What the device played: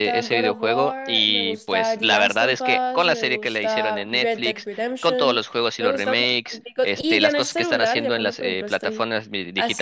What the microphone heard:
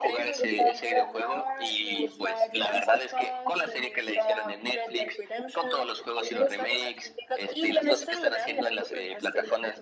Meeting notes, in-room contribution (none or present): none